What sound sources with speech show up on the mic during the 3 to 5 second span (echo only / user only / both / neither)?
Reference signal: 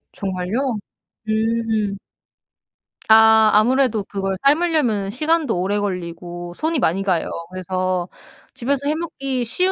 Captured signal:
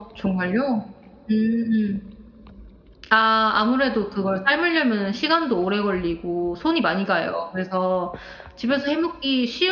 echo only